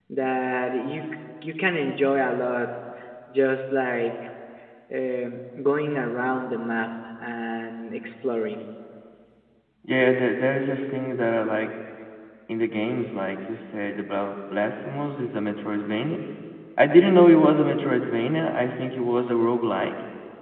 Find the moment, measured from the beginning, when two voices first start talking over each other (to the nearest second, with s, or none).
none